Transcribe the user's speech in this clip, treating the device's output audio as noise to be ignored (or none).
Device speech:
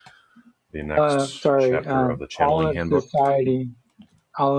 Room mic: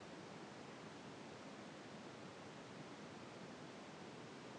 none